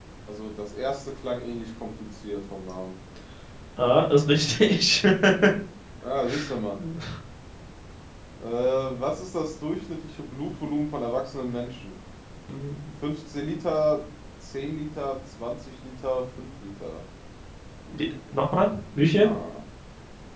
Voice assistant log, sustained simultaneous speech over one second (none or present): none